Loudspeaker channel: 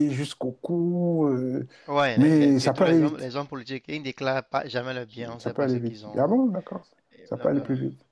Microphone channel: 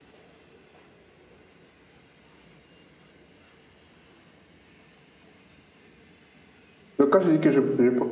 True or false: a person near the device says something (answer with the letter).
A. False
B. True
B